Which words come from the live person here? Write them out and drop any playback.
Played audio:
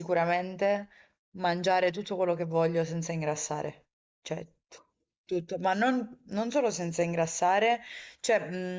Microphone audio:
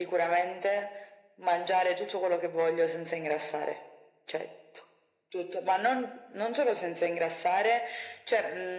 none

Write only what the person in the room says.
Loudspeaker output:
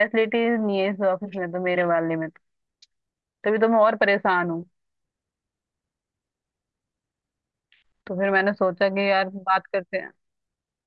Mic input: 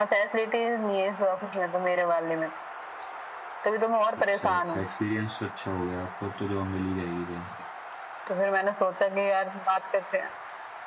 अच्छा अच्छा एक्सपीरियंस अच्छा हो गया आपको अब तो जॉब मिल ही जाएगी कहीं ना कहीं

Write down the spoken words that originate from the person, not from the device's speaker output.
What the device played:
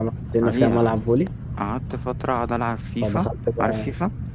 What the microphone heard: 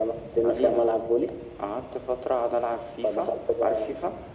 none

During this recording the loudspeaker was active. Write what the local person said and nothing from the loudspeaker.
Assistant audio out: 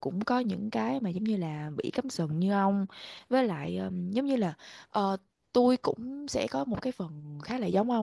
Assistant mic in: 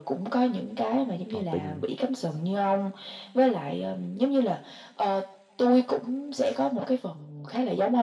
tỏ tình

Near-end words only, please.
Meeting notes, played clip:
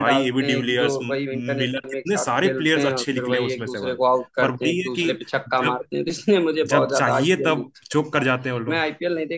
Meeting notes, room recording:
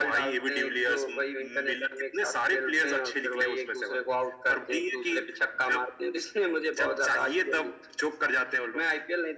none

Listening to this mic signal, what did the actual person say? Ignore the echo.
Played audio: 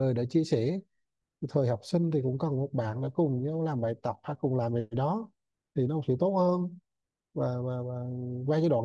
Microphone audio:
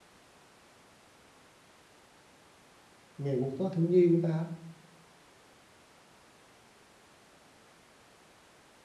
ngày quốc tế thiếu nhi của ta

